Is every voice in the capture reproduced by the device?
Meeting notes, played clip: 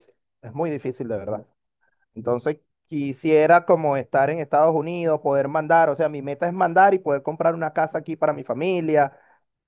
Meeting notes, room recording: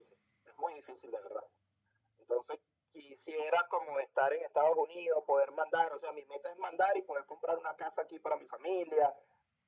Yes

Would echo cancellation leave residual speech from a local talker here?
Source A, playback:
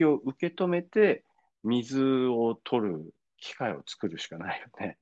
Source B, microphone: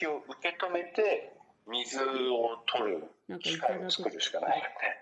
Yes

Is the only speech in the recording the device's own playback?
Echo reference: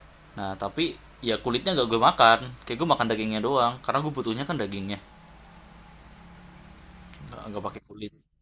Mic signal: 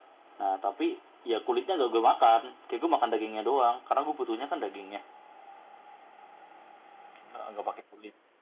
Yes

